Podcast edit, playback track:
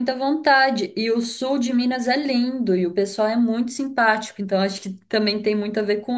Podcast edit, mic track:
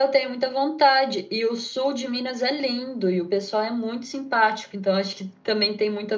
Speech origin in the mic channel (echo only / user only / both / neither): echo only